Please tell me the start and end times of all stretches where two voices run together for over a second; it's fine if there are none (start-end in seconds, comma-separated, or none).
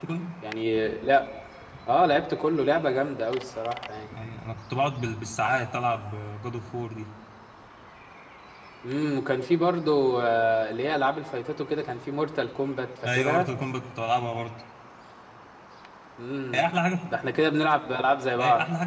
none